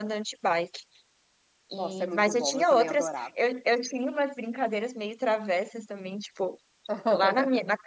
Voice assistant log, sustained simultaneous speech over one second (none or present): present